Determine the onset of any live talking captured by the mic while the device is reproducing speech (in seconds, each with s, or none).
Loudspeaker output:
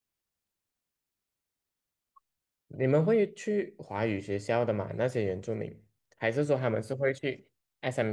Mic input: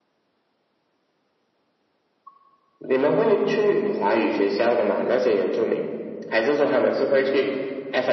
none